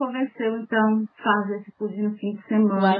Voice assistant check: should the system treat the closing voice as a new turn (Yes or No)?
Yes